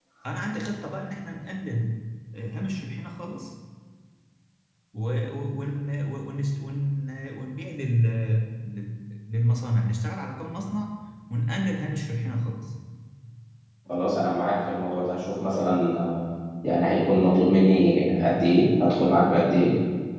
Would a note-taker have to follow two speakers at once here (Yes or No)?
No